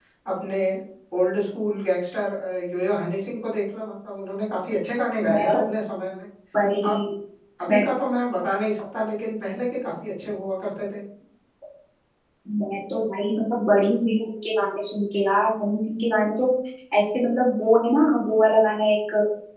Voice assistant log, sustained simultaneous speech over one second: none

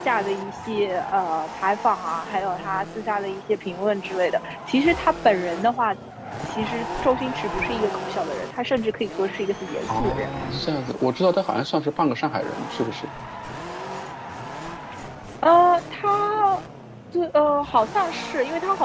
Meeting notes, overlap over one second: none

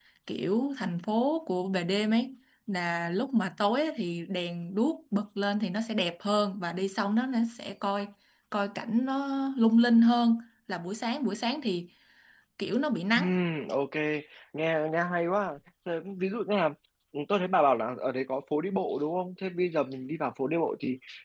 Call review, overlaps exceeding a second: none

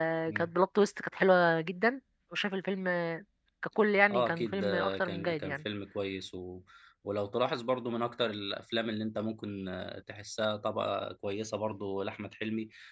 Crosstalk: present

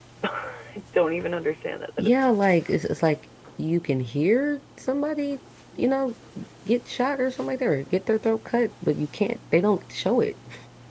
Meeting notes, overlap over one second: none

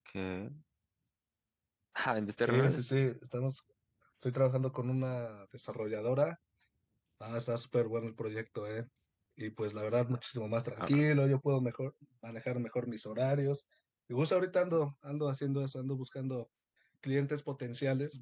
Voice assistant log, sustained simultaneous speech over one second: none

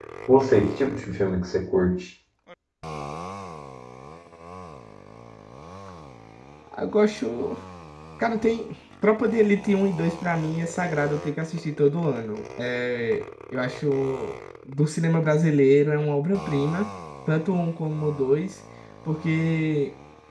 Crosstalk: none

